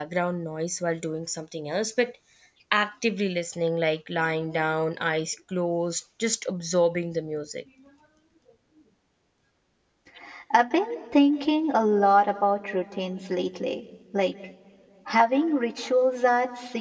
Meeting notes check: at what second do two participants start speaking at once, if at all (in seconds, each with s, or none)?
none